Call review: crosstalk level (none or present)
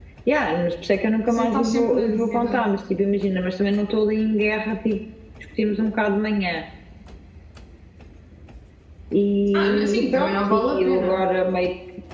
present